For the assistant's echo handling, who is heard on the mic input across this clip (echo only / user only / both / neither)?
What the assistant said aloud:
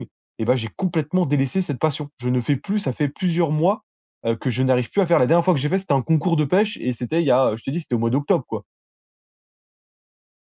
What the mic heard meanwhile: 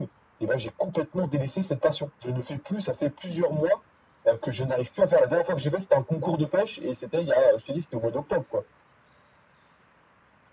echo only